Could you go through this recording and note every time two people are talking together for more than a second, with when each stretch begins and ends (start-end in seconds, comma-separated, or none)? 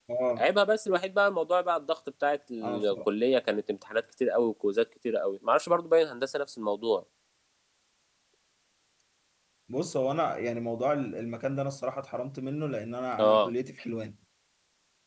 none